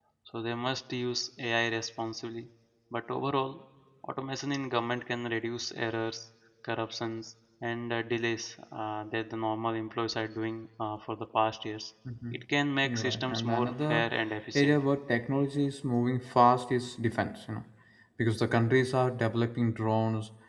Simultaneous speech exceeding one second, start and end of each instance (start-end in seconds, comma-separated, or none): 12.8-14.1